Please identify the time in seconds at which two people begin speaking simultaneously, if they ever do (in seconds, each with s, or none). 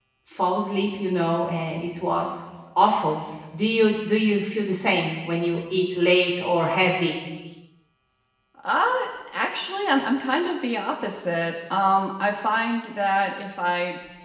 none